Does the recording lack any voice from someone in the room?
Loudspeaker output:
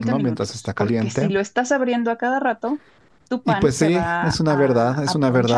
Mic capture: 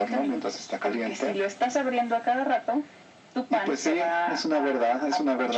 Yes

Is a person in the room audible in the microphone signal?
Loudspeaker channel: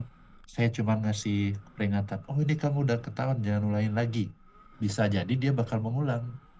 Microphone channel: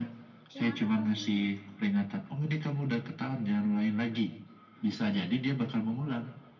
Yes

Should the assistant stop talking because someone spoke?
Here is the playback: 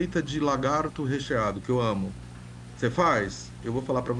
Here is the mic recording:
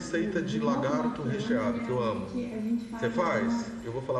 Yes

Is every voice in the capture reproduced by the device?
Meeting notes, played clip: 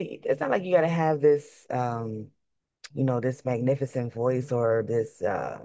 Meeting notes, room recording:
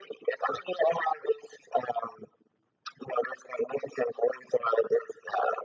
Yes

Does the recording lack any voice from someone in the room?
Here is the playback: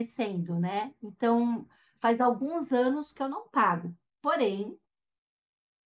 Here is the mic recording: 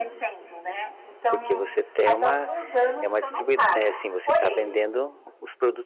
No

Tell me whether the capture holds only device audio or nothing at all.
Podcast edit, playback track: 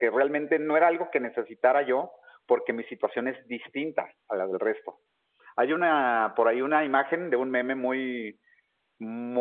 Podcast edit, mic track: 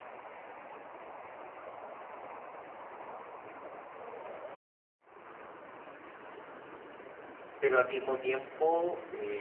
No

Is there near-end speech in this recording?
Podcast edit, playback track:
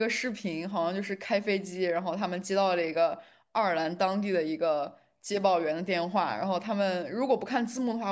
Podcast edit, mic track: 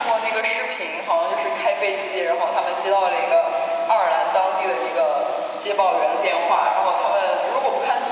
No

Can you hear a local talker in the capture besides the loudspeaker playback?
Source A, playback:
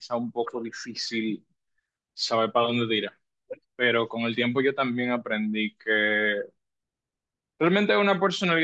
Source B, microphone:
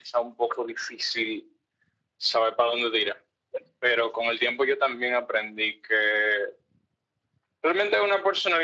No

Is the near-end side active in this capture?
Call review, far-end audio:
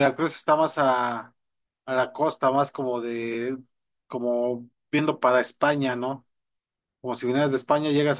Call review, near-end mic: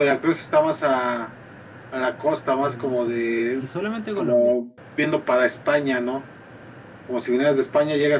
Yes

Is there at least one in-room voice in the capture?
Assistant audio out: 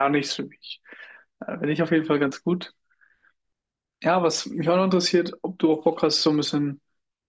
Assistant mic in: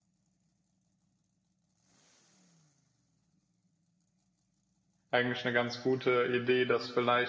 Yes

